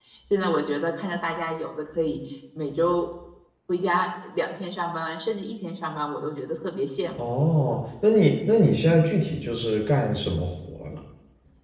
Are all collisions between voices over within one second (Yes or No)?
Yes